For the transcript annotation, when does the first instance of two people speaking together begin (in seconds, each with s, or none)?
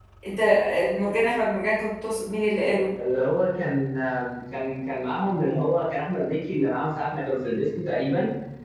none